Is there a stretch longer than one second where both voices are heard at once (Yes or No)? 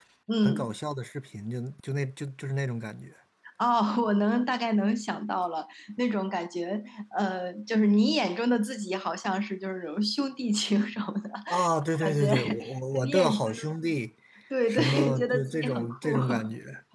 Yes